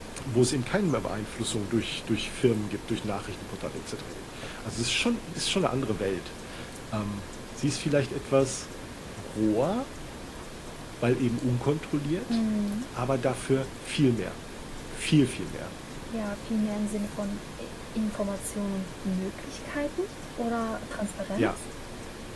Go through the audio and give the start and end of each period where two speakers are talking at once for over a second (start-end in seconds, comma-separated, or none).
none